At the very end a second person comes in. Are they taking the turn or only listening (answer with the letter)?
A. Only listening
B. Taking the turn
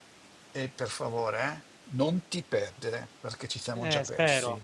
B